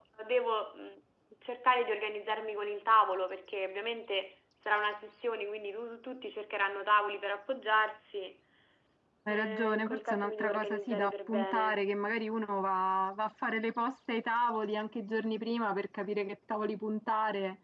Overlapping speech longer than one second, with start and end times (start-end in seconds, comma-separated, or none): 9.3-11.8